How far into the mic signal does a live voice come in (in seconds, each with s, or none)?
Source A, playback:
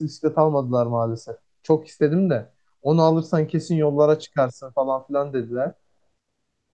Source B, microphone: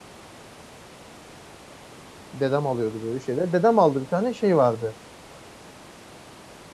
2.3 s